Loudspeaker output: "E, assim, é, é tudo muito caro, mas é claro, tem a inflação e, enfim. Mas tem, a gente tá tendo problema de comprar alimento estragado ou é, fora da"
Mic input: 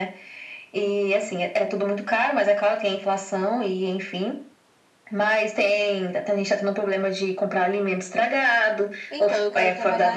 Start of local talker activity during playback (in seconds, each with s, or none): 9.1 s